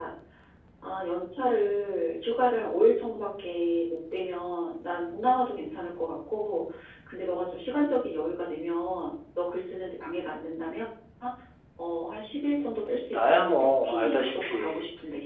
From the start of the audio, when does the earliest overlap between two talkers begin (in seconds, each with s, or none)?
13.1 s